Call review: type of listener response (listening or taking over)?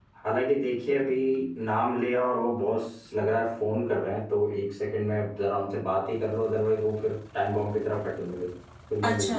taking over